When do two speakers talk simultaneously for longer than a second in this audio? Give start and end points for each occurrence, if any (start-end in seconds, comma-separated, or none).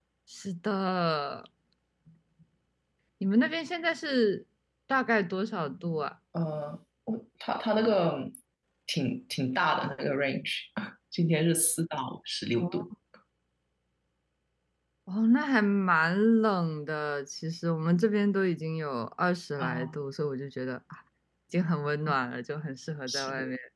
none